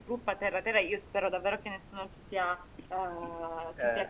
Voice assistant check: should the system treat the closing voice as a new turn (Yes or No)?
No